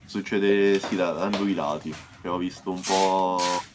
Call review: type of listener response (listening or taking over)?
listening